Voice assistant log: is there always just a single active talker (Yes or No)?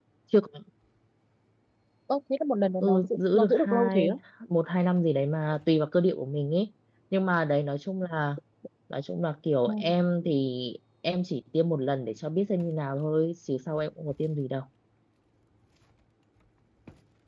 No